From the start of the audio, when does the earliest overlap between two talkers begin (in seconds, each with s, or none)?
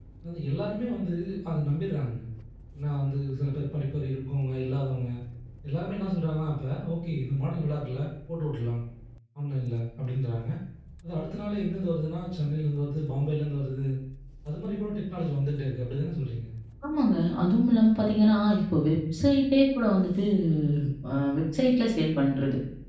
none